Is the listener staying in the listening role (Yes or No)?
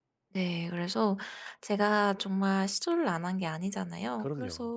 Yes